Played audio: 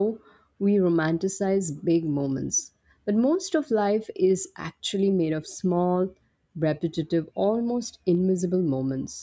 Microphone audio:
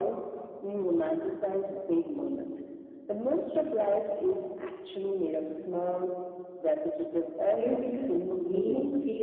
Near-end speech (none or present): present